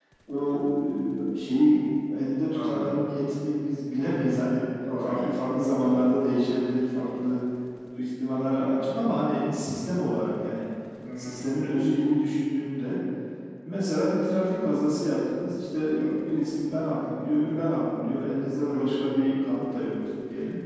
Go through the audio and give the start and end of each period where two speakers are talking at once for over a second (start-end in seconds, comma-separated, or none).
none